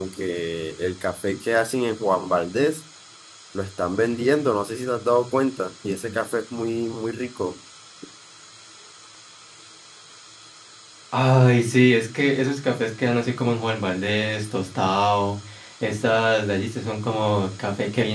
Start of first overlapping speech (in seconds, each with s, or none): none